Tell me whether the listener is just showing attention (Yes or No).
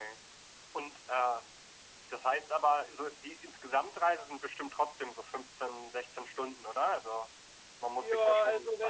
No